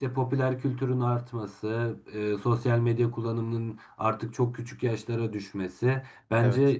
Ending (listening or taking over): listening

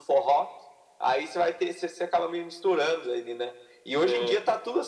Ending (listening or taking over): listening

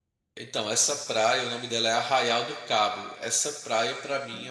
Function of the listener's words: listening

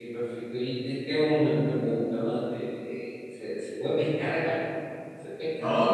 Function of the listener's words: taking over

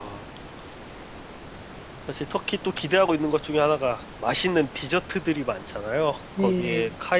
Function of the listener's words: listening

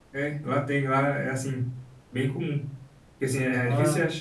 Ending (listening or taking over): listening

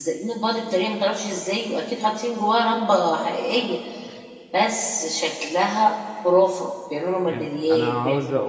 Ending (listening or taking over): taking over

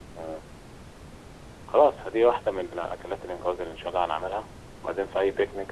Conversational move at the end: listening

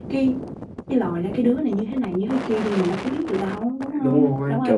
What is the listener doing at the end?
taking over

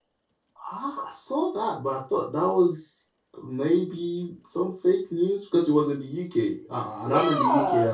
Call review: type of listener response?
listening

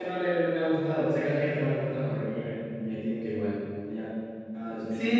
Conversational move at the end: taking over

